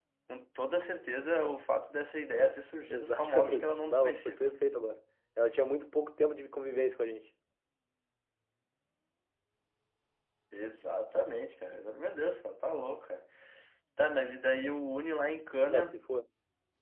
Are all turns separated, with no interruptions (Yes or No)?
No